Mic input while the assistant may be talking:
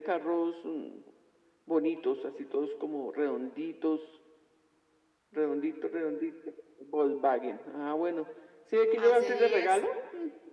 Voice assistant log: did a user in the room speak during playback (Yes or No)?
Yes